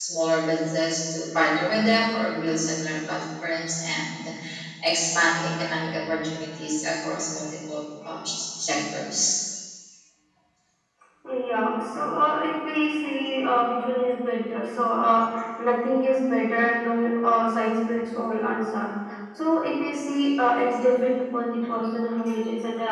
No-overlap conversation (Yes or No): Yes